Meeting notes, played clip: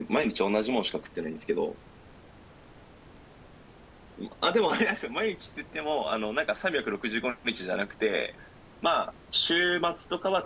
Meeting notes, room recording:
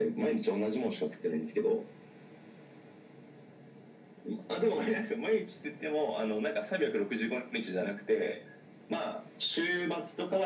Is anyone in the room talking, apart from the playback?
No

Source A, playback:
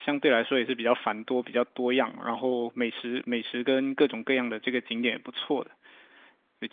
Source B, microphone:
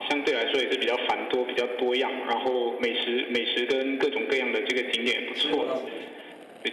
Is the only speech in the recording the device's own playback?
No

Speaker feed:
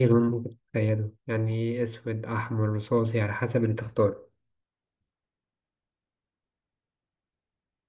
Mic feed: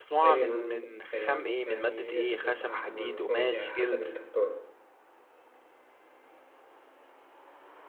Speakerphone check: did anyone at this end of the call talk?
Yes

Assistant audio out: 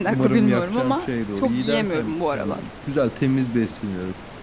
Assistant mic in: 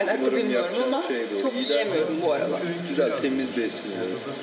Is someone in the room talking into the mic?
Yes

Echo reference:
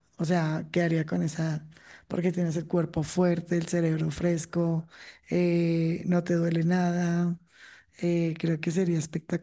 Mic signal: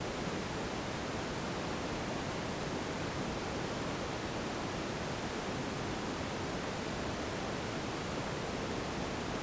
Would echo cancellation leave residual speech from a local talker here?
No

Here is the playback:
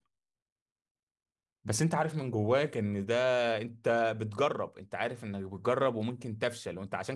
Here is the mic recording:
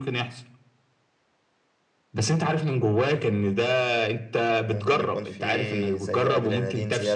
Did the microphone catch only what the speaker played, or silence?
No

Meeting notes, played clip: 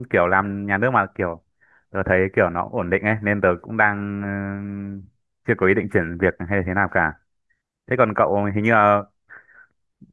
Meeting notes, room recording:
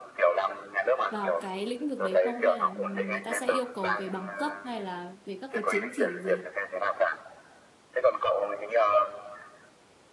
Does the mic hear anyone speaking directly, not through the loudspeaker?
Yes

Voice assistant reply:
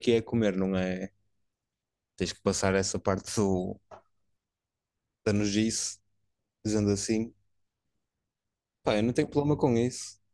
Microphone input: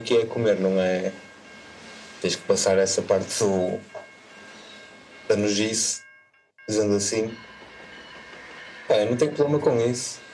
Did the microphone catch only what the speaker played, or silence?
Yes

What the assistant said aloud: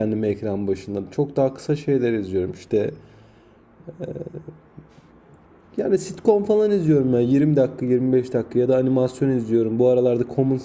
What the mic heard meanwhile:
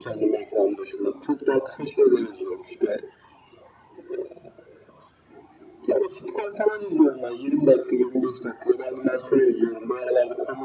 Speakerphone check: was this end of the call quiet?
Yes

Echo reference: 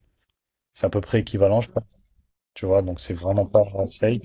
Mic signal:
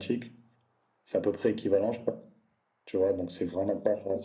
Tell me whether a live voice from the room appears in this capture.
No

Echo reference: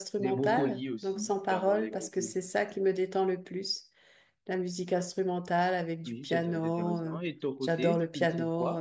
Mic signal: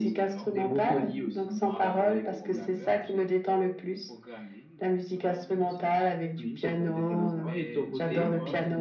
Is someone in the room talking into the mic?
Yes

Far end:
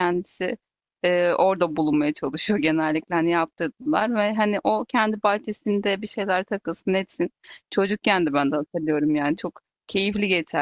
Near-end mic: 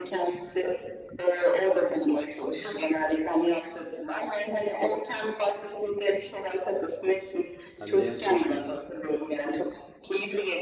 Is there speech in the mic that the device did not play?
Yes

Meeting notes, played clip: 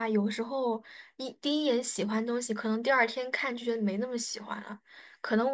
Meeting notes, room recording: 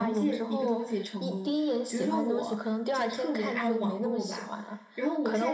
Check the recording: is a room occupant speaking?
Yes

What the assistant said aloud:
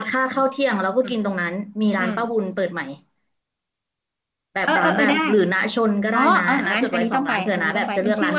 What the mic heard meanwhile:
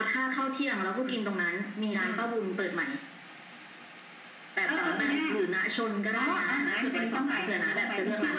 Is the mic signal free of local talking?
Yes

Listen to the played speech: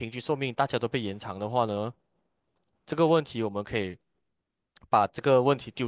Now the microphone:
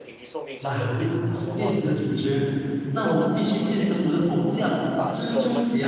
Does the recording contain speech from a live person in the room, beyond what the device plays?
Yes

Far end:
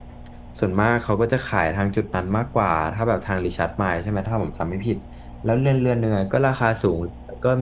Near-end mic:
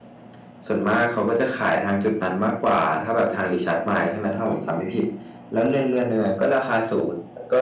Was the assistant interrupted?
No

